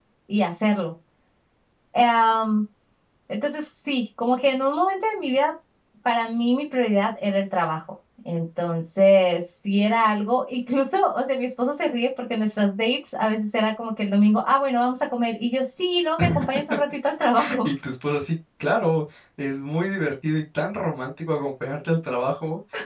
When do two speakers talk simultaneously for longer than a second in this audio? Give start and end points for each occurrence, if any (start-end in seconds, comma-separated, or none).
none